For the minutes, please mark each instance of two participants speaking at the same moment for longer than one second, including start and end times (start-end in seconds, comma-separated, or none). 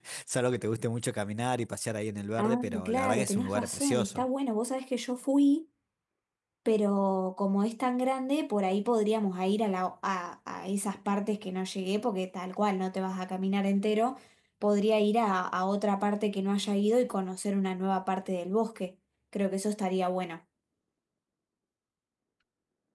2.4-4.2